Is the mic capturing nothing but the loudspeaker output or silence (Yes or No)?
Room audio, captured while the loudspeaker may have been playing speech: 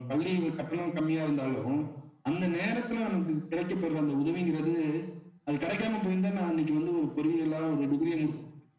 Yes